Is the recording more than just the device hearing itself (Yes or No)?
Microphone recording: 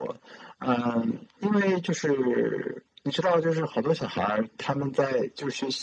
No